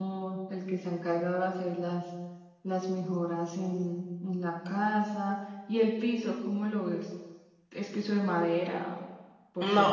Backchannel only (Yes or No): No